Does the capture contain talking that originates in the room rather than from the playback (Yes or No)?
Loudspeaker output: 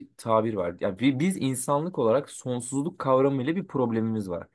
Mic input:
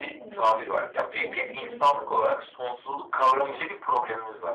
Yes